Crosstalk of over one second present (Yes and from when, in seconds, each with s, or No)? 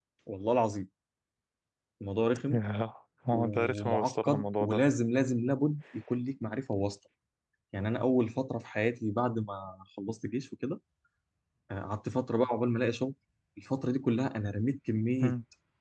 Yes, from 3.3 s